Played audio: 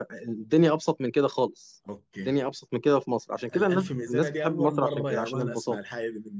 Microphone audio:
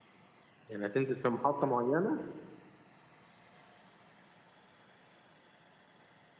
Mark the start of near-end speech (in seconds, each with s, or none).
0.7 s